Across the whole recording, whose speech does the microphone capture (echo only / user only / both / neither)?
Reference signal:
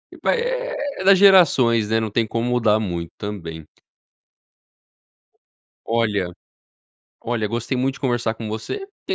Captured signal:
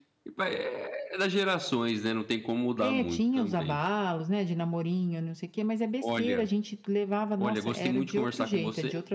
both